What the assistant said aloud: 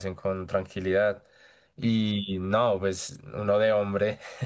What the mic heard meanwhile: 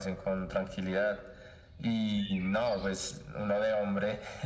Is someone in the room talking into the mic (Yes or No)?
No